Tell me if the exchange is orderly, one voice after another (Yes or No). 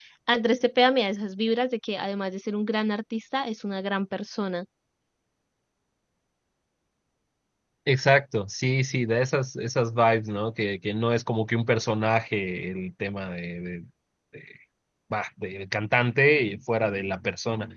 Yes